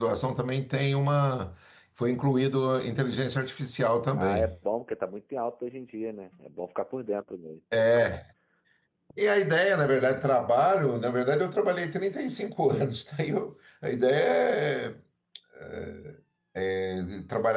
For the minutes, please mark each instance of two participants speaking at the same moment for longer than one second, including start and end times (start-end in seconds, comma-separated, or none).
none